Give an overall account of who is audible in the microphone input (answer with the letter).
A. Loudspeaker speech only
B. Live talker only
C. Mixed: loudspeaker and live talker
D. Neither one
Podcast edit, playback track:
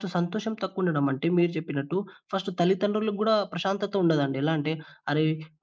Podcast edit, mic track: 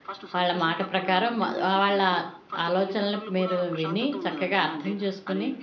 C